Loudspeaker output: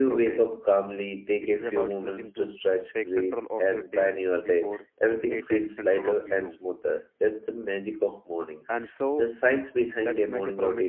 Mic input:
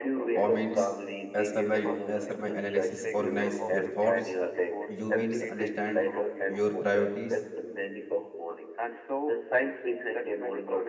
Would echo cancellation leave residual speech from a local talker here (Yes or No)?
Yes